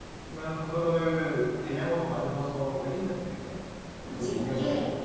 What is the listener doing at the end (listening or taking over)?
taking over